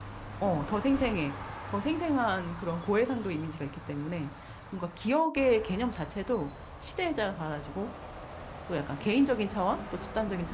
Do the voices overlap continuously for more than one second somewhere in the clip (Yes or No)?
Yes